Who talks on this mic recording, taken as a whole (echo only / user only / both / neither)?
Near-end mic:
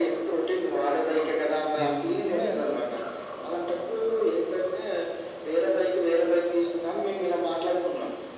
both